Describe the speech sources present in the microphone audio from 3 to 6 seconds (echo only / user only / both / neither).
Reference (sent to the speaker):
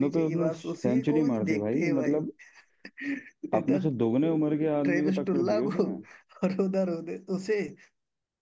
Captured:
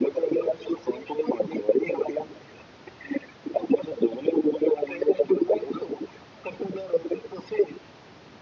echo only